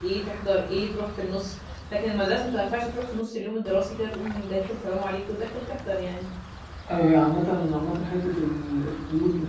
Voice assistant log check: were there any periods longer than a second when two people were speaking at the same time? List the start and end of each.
none

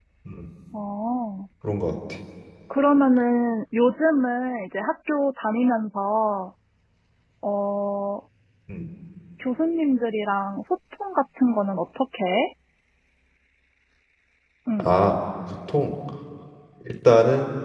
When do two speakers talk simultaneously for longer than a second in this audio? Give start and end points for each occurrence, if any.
none

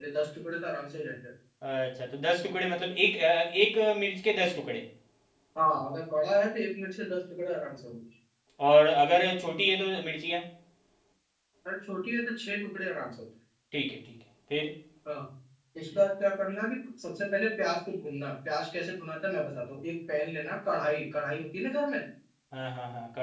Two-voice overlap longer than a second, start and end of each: none

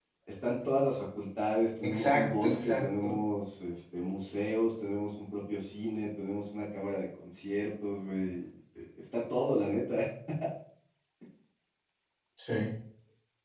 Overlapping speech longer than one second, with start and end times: 1.8-3.2

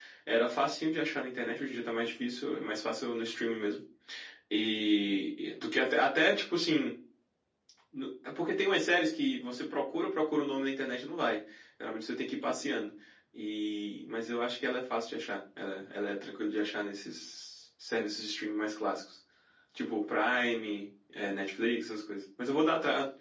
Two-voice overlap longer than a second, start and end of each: none

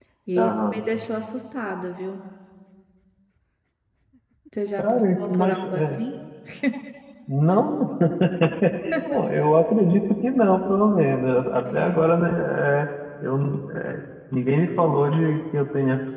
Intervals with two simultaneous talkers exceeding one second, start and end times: 4.8-6.0

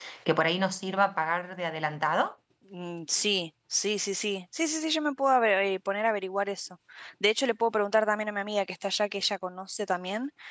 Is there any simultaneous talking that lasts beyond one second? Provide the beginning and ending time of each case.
none

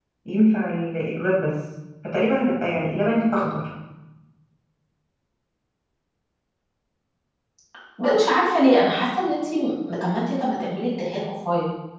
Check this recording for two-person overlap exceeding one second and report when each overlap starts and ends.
none

